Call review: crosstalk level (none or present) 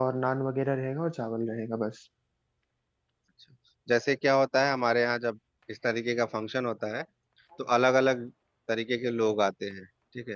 none